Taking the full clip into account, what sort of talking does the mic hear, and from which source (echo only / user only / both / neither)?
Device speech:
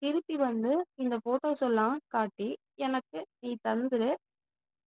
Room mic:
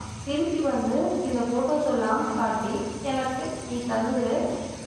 echo only